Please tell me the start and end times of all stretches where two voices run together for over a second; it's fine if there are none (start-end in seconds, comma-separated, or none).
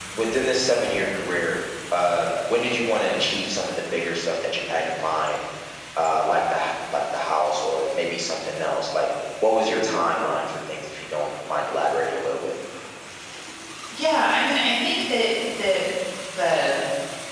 none